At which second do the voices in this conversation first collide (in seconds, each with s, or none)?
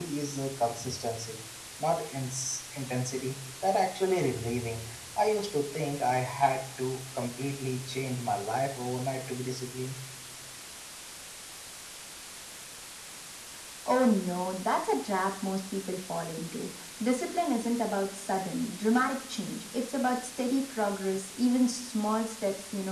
none